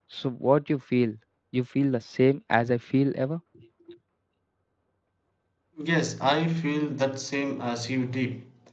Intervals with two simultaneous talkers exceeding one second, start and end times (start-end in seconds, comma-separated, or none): none